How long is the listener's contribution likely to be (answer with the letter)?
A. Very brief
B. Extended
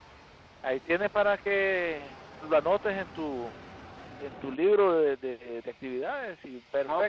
B